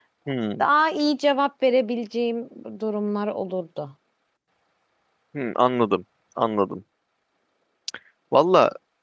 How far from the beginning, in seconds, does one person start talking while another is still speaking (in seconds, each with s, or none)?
none